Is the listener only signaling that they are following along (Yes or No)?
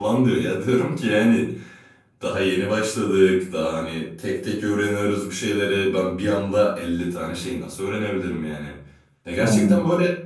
Yes